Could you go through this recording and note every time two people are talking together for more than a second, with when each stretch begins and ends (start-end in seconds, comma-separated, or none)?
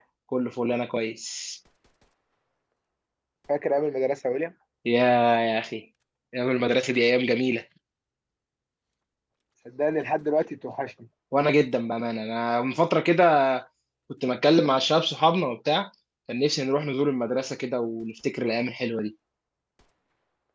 none